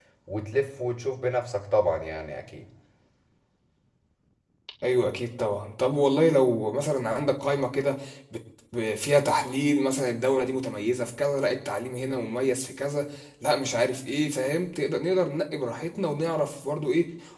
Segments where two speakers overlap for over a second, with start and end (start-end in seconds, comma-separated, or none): none